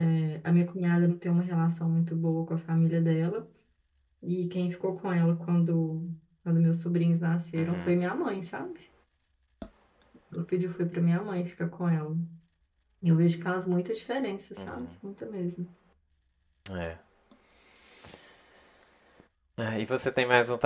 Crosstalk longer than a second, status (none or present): none